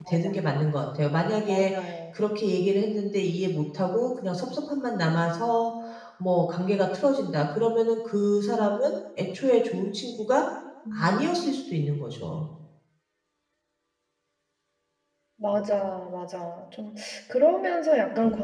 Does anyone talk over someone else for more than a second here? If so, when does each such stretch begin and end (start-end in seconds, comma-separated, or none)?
none